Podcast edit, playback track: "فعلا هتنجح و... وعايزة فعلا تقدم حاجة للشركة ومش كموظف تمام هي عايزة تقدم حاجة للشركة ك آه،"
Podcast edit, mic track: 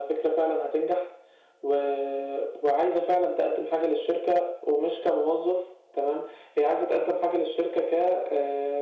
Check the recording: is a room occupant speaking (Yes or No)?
No